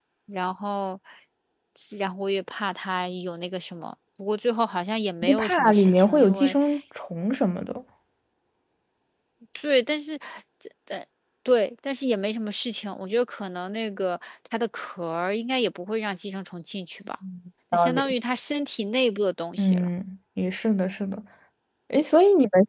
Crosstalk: present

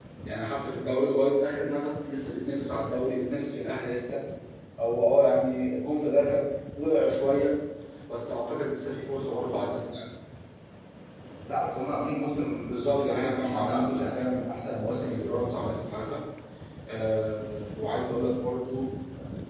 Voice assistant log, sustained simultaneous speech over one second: present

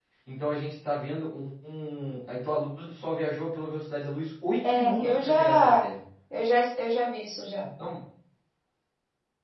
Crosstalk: present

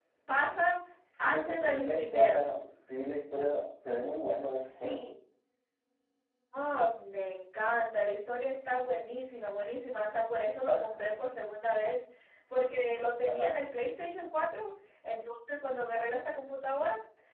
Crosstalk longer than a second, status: present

